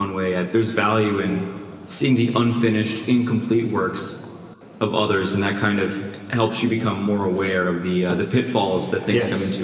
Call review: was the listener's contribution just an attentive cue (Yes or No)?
No